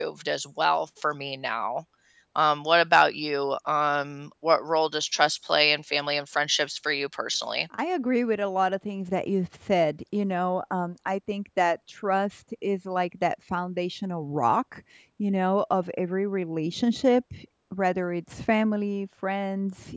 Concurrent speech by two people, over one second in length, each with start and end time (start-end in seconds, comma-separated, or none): none